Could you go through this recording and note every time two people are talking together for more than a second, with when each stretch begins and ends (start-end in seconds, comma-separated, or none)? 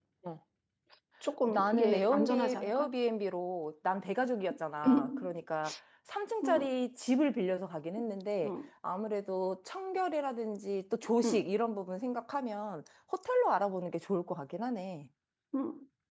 1.5-2.9